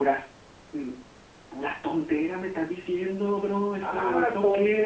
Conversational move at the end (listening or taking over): taking over